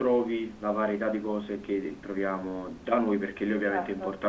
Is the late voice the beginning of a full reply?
No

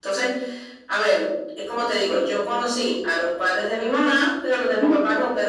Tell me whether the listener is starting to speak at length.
No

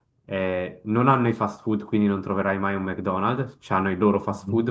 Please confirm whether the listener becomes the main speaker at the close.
No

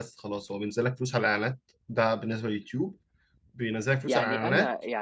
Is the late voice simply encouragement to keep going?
No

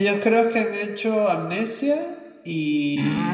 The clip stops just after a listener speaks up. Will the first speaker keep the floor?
No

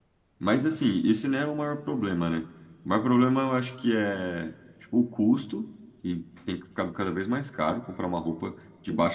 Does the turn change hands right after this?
No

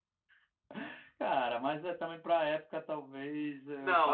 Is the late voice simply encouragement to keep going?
No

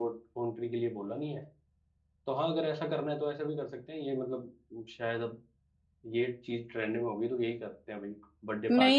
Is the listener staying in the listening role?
No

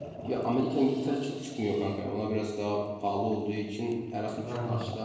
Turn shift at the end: No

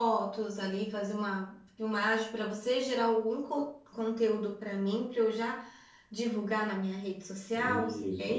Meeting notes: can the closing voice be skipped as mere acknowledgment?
No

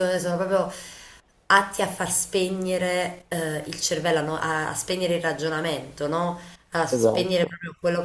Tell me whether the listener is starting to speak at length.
No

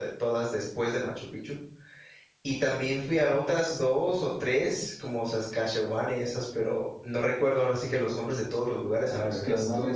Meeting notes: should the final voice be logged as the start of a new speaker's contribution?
Yes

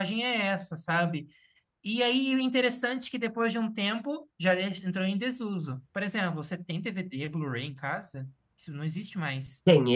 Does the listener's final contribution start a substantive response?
Yes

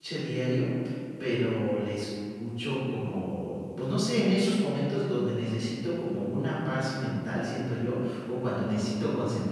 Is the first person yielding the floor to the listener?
No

